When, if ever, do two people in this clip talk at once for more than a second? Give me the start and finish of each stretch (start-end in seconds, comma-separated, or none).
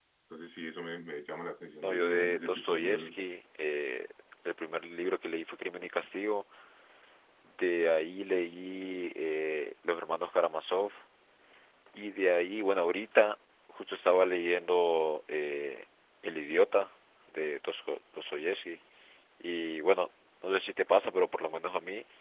1.8-3.1